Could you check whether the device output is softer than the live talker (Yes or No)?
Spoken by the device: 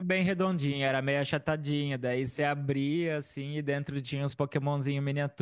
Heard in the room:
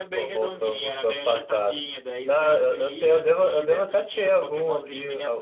Yes